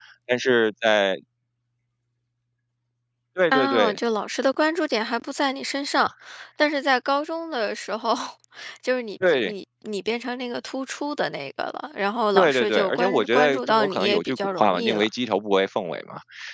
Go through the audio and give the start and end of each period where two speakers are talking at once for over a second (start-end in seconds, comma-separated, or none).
12.3-15.1